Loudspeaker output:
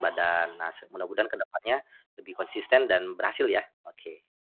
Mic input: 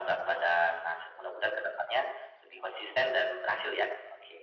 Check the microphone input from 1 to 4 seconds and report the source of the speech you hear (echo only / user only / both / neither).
echo only